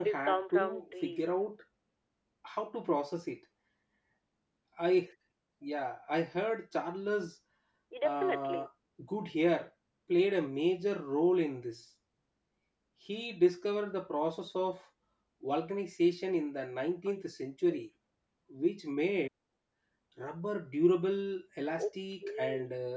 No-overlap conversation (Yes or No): No